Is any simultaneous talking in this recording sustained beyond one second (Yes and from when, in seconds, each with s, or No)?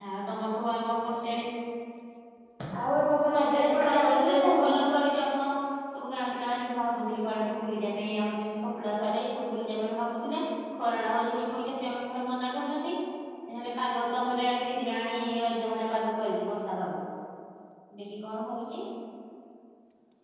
Yes, from 3.3 s